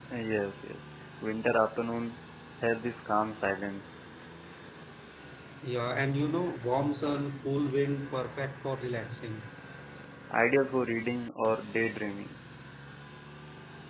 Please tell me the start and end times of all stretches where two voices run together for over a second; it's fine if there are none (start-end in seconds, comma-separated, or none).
none